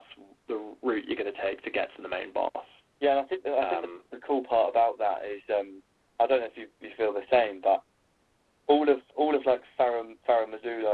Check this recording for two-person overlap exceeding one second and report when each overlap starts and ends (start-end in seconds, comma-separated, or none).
none